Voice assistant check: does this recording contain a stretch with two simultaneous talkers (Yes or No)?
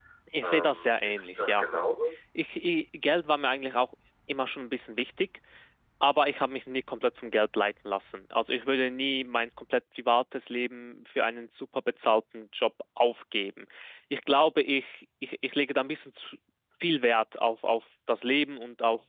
Yes